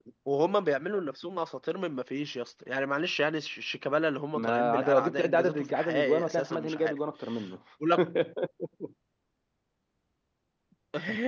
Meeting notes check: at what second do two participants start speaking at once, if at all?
4.3 s

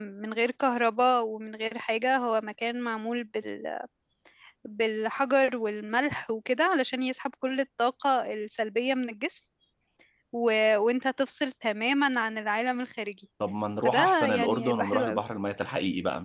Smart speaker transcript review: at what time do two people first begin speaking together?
13.8 s

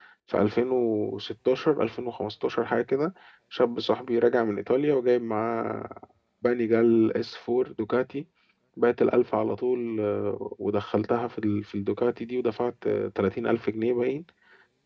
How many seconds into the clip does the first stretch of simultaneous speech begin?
none

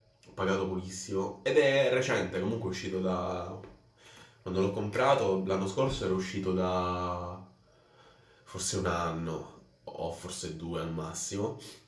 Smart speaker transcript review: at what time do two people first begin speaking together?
none

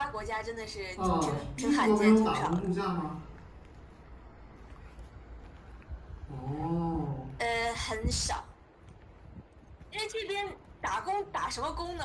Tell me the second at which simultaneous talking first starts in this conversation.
1.0 s

